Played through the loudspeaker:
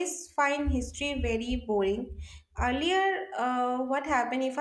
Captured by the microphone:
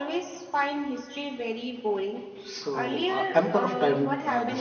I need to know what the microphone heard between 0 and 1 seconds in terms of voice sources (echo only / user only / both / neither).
echo only